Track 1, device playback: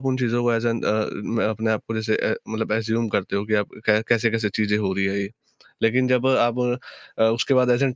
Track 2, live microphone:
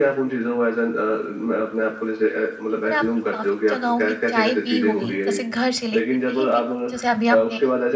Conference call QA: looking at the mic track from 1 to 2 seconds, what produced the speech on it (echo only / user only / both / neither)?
echo only